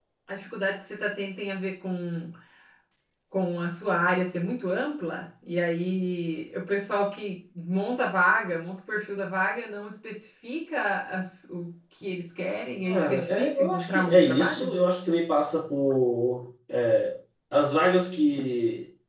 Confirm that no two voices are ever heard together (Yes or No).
No